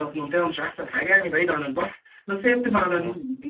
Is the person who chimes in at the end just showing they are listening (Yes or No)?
Yes